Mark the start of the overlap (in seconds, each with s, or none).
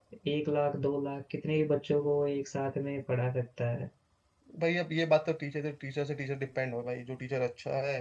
none